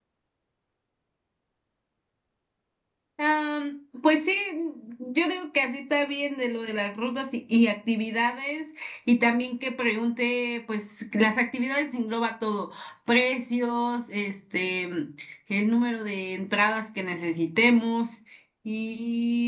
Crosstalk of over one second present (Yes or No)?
No